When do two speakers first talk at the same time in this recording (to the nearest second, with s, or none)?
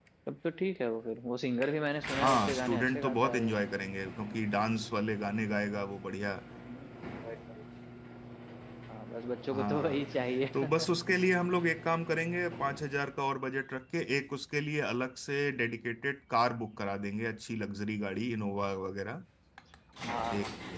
2 s